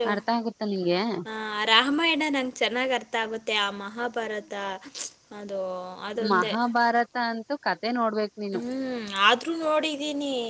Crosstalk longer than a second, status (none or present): none